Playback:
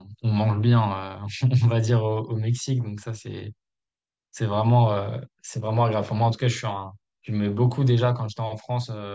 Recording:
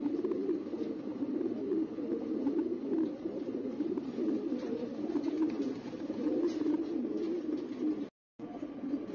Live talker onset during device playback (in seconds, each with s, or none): none